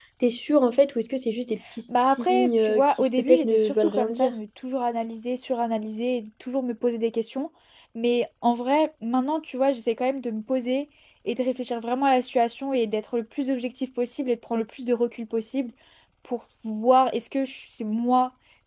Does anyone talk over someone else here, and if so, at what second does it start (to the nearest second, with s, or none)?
2 s